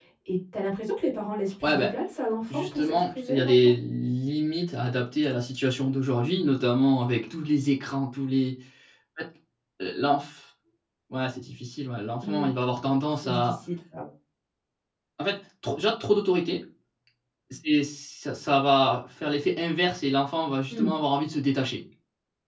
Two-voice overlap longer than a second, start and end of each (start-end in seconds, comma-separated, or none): 2.5-3.7